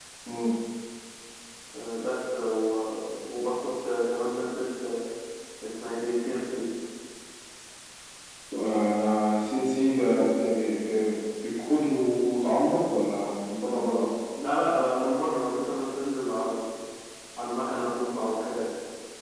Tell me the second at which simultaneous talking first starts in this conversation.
none

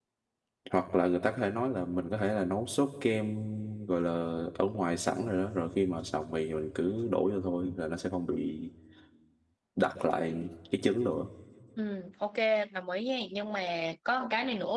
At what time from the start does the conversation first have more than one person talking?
none

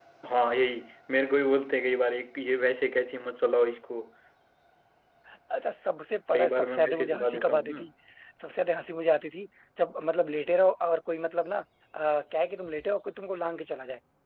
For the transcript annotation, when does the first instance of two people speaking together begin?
6.3 s

